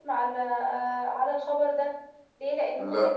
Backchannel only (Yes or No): Yes